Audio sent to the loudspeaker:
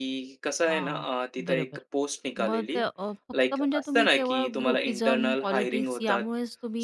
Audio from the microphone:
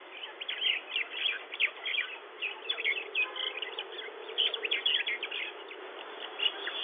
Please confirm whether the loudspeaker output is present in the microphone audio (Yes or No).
No